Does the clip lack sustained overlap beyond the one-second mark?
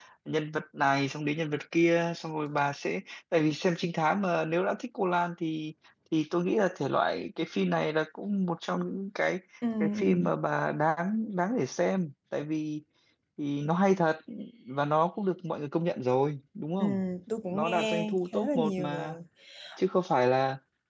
No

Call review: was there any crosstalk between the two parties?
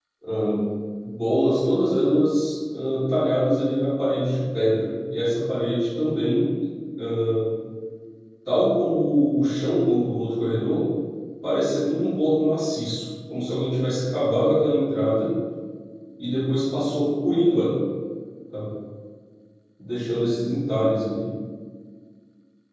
No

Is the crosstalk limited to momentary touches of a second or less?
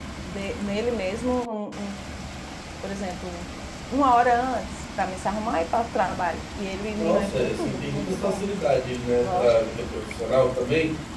No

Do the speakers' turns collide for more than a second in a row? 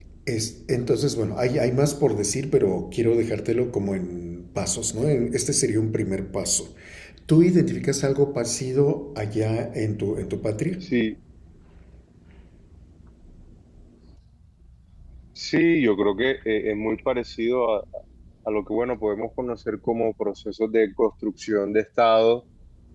No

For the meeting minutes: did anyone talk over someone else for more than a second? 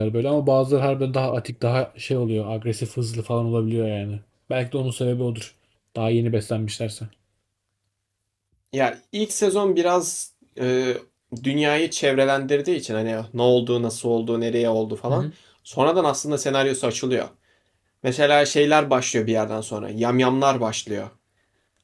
No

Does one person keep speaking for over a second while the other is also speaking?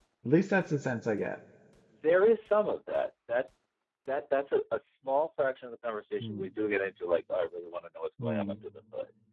No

